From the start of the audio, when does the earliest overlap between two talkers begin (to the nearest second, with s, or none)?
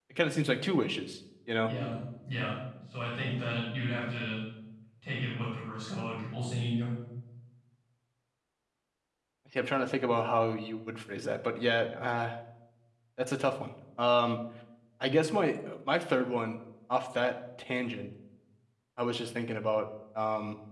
none